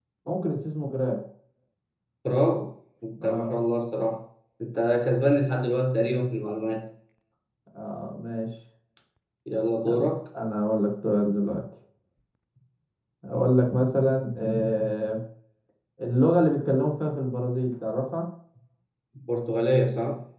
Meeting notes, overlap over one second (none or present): none